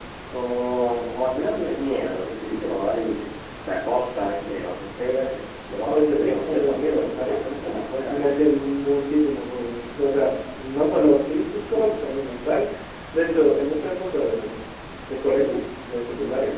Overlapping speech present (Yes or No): Yes